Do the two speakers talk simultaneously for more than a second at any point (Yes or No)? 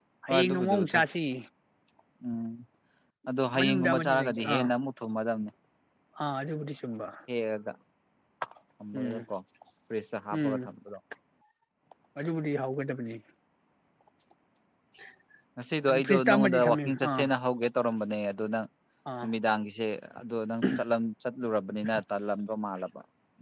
Yes